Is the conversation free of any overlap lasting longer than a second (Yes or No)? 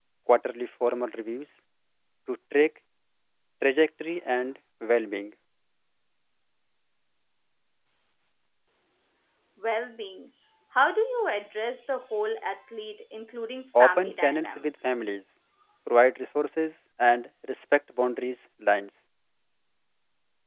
No